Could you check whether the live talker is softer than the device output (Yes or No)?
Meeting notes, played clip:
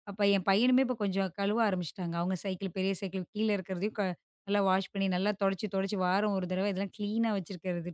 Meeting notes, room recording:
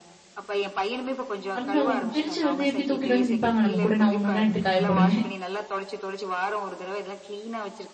No